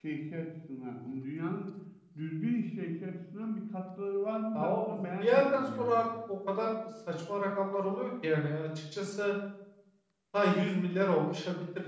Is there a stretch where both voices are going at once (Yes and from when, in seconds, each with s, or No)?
Yes, from 4.6 s